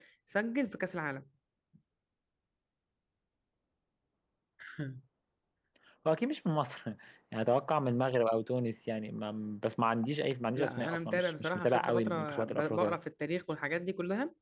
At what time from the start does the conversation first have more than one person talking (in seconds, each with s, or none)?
10.6 s